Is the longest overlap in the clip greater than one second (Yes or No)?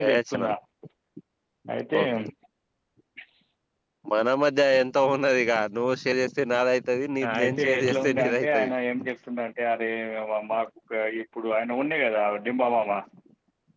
Yes